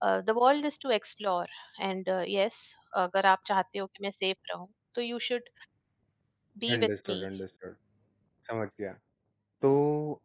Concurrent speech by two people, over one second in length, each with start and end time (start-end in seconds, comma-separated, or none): none